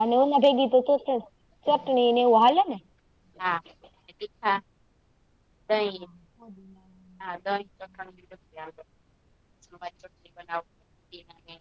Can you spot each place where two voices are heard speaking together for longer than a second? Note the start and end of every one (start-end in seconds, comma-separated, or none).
none